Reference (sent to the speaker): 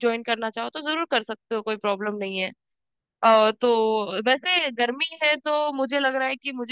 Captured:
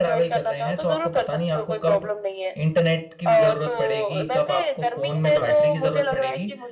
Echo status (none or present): present